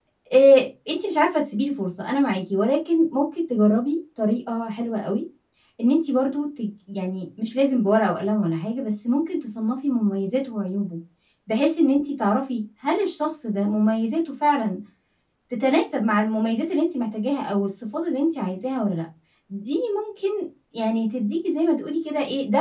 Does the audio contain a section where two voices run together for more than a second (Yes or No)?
No